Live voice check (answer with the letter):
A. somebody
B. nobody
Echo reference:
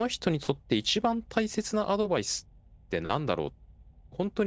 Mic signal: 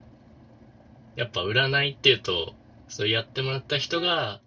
A